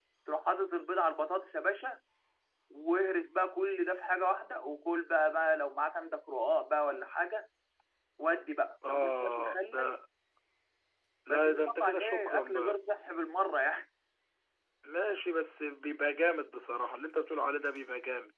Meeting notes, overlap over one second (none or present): present